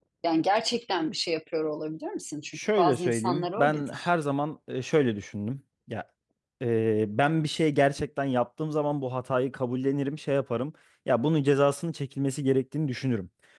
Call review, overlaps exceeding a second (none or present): present